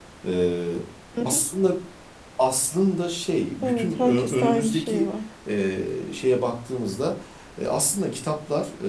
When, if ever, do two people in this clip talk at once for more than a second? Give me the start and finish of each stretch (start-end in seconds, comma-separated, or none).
3.6-5.1